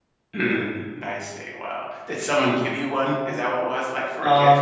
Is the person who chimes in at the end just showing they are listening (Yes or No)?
No